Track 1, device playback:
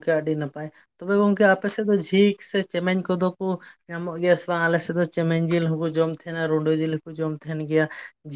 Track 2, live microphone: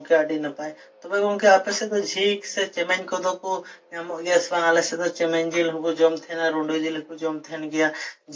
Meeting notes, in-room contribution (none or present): none